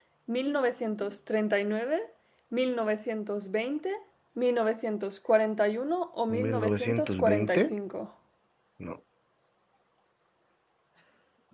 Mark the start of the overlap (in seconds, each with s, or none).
6.3 s